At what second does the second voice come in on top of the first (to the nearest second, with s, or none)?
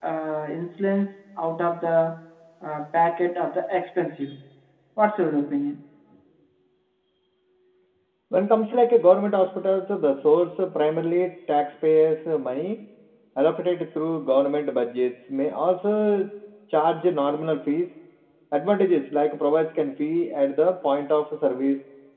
none